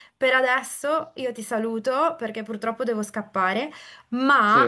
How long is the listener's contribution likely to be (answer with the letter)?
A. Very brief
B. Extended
A